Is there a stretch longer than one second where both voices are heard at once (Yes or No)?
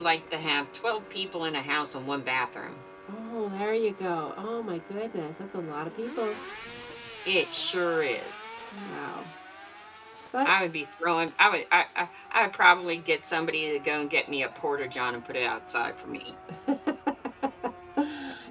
No